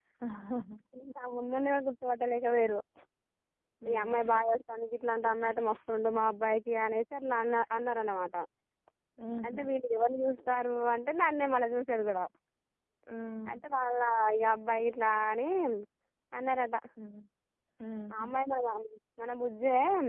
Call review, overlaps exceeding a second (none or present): none